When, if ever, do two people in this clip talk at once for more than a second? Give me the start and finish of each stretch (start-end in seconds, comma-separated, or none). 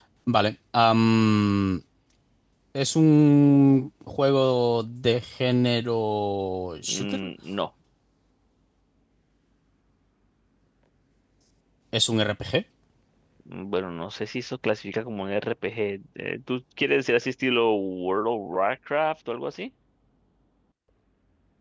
none